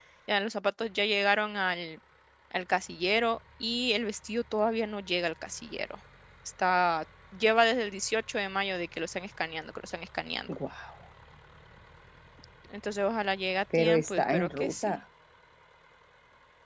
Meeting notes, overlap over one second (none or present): present